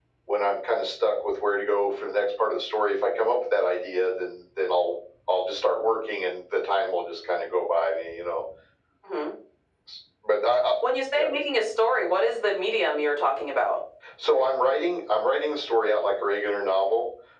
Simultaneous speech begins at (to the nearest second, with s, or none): none